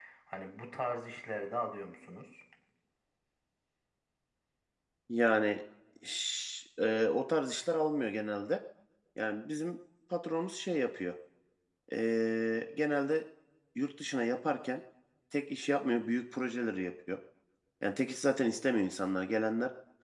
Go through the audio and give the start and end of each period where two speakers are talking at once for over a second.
none

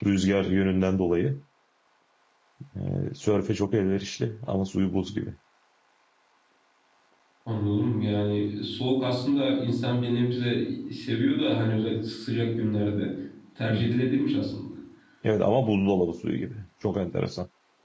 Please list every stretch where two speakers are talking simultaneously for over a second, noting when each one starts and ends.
none

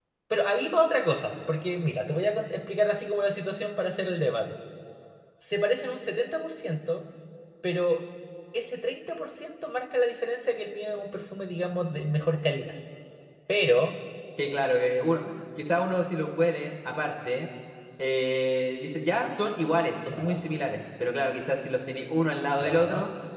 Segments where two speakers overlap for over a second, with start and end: none

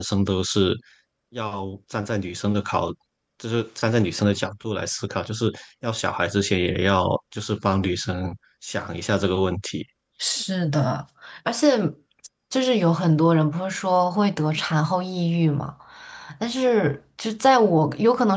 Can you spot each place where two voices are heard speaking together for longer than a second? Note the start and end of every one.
none

